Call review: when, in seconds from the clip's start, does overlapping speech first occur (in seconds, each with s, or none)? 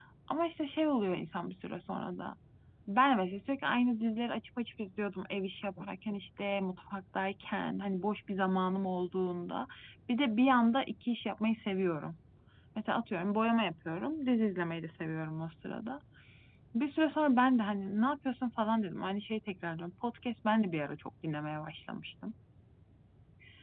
none